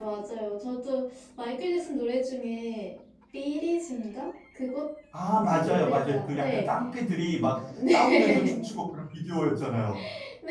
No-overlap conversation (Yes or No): No